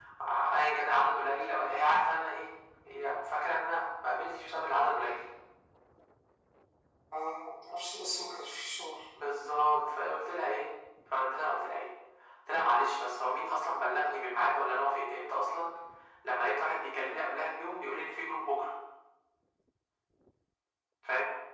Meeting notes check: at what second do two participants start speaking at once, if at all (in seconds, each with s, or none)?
none